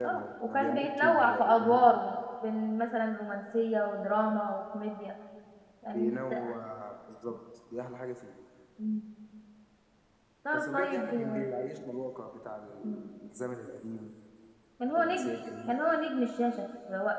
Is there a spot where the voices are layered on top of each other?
Yes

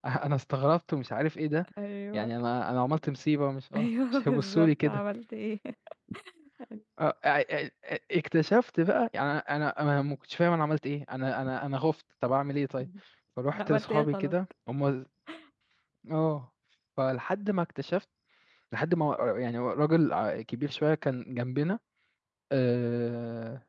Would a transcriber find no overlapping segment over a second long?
No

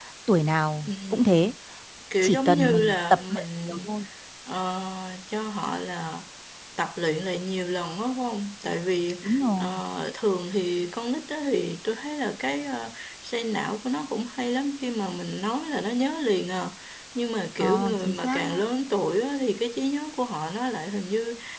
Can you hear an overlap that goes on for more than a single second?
Yes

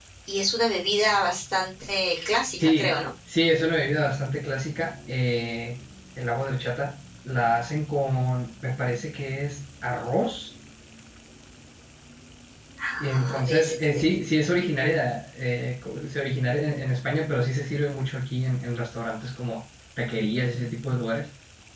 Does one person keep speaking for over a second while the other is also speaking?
Yes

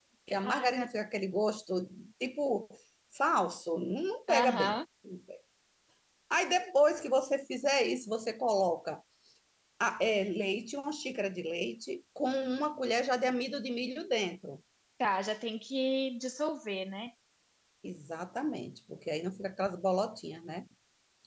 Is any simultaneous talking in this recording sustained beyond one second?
No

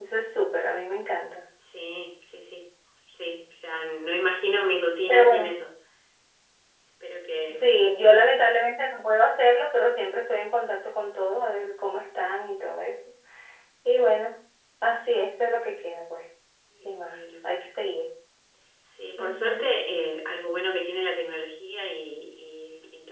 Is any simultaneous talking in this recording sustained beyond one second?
No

